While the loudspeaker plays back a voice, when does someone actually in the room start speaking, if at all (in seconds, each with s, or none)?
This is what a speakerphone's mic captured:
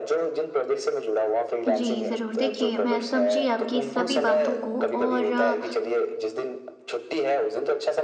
1.7 s